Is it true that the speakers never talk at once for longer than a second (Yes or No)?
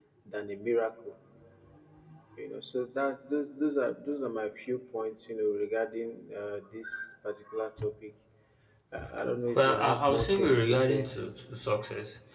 No